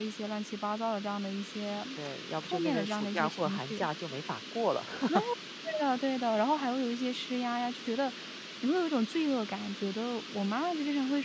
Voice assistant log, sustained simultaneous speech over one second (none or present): present